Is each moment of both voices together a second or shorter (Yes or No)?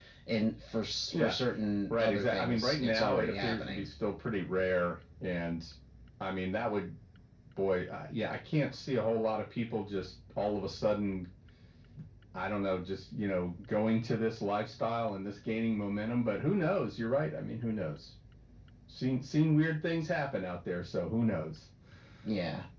No